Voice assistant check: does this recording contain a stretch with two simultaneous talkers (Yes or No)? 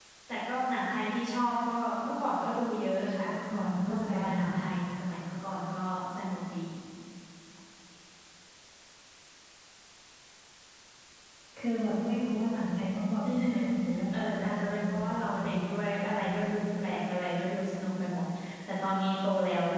Yes